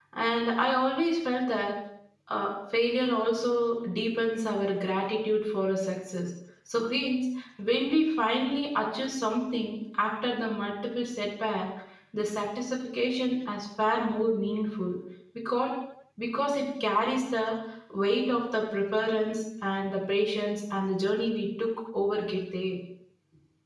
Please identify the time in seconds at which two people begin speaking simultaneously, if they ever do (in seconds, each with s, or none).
none